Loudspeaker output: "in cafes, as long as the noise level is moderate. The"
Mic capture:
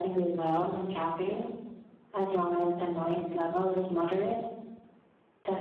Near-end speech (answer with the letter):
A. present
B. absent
B